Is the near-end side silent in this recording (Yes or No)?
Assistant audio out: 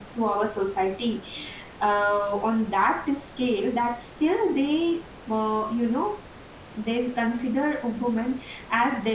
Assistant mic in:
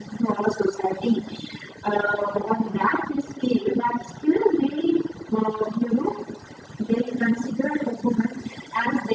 Yes